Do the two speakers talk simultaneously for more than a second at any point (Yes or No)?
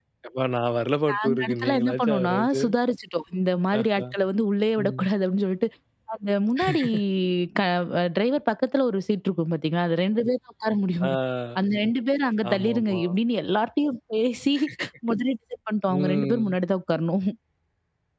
Yes